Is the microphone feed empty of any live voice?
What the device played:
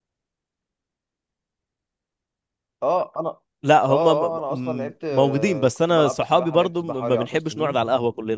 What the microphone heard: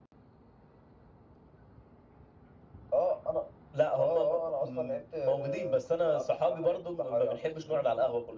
Yes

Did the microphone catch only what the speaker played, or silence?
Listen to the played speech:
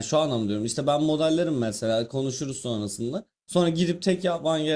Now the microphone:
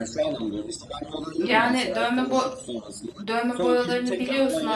No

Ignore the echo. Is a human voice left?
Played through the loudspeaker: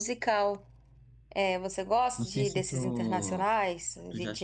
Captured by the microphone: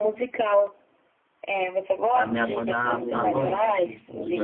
Yes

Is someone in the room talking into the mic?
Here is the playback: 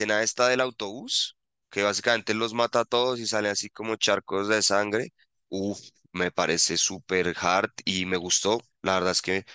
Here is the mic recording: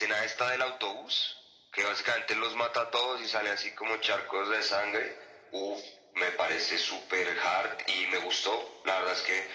No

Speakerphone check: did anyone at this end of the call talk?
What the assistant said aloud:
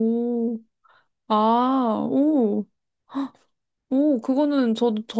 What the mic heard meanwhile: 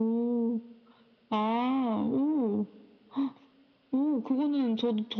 No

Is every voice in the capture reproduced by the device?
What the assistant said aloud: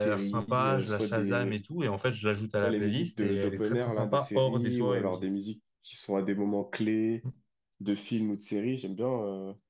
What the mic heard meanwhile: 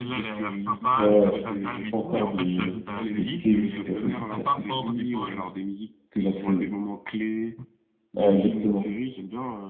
No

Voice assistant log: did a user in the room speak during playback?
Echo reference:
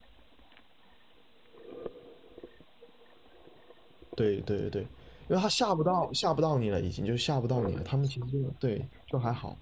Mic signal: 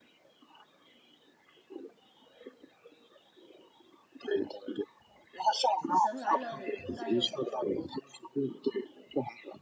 Yes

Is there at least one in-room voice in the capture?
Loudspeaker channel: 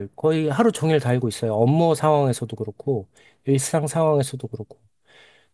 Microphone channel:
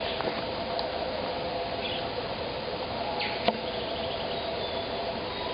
No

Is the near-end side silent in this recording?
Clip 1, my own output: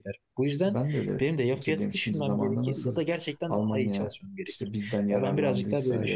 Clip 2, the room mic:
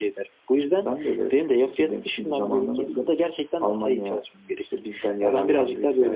Yes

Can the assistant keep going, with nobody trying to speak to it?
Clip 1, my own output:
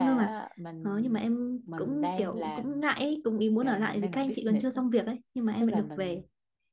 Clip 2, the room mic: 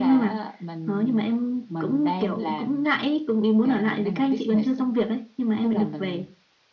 Yes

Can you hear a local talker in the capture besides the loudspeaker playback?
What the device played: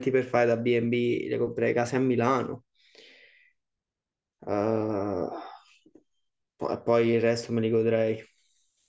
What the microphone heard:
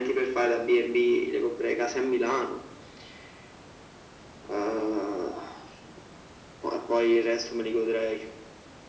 No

